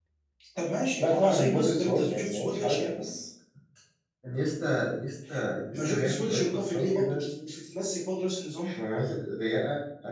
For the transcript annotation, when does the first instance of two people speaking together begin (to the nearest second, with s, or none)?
1 s